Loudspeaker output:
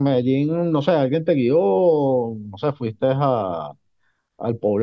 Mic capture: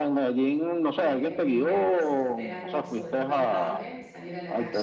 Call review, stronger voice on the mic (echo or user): echo